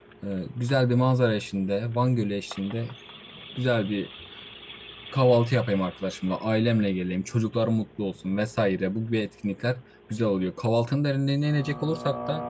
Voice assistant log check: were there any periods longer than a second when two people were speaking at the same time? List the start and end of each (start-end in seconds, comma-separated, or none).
none